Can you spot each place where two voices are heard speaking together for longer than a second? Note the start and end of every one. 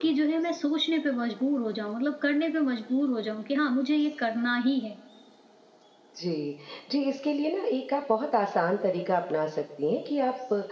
none

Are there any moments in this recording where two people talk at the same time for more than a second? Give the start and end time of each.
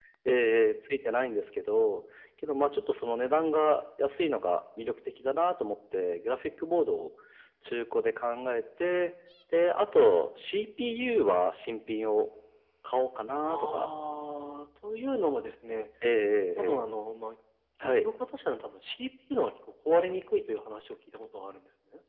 none

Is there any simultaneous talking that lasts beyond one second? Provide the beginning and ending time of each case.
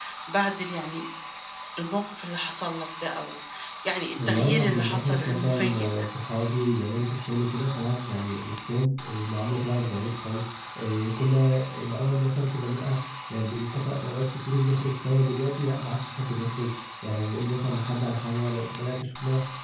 4.3-6.1

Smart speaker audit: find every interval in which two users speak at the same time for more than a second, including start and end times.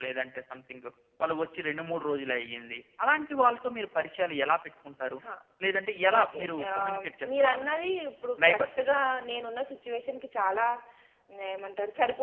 6.2-7.7

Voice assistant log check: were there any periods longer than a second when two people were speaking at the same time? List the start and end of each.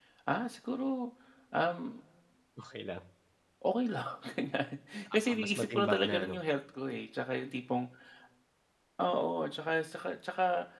5.1-6.4

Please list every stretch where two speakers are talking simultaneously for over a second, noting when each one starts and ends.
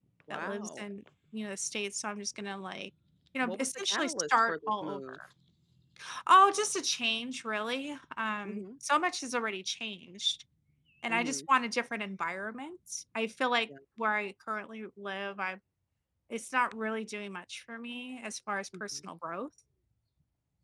3.4-5.0

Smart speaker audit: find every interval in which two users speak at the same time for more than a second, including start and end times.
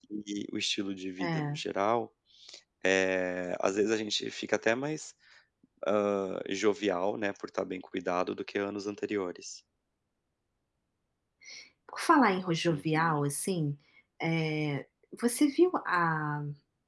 none

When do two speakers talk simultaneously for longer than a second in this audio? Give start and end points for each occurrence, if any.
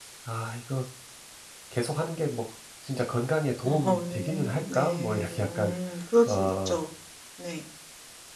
3.6-5.8

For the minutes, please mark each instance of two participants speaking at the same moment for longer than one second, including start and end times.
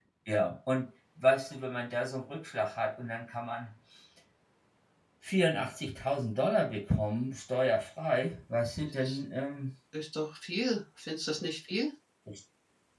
none

